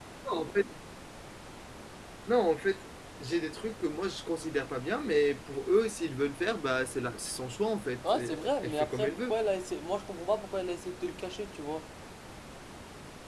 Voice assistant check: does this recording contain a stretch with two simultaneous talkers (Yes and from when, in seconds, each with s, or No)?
Yes, from 8.0 s